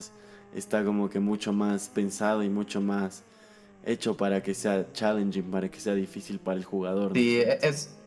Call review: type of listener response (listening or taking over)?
taking over